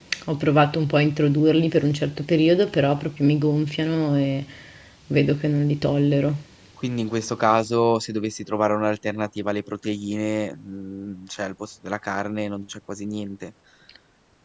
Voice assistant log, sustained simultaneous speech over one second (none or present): none